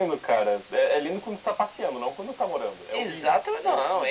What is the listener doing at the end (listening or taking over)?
taking over